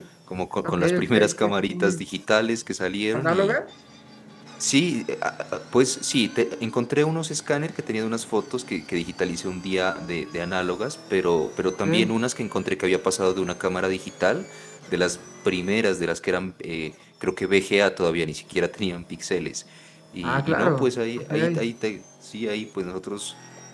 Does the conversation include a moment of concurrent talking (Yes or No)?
Yes